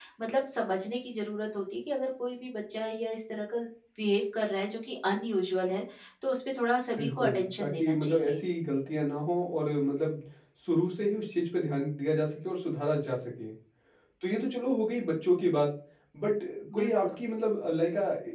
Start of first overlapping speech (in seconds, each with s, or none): 7.0 s